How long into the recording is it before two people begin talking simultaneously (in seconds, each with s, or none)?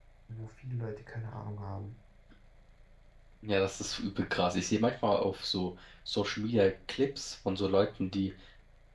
none